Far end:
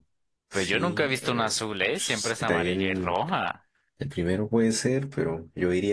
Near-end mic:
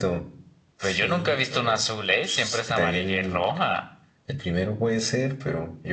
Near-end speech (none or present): none